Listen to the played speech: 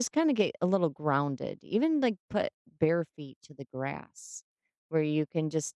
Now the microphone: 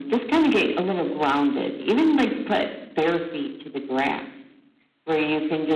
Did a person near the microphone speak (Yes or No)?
No